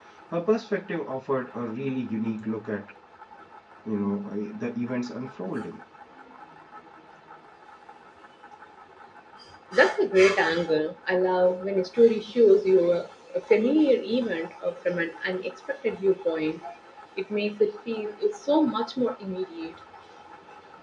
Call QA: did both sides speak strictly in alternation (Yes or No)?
Yes